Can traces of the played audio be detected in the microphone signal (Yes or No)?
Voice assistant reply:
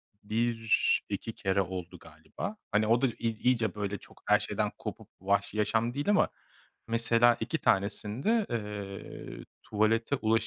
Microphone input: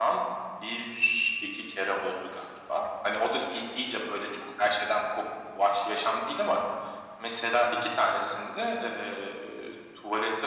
Yes